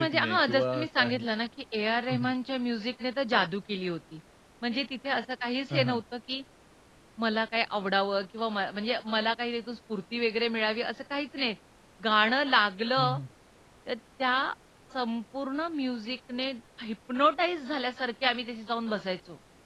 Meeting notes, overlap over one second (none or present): present